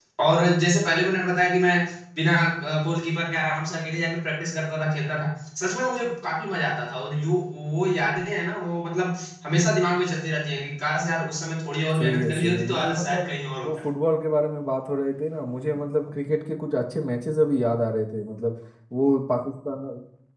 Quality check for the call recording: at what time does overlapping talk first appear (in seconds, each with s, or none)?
11.9 s